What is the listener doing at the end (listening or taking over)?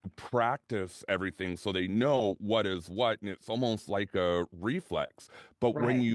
listening